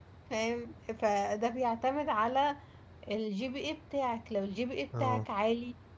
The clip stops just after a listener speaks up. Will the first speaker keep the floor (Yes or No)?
Yes